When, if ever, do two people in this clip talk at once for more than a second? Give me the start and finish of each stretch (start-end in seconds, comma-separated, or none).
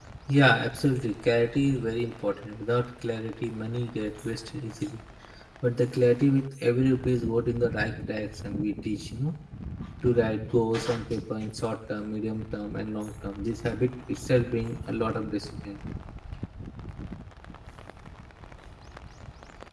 none